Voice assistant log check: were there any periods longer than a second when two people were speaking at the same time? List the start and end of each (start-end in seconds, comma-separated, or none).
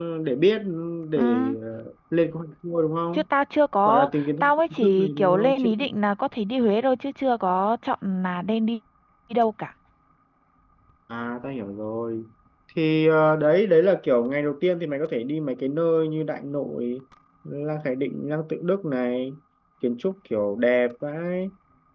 3.8-5.7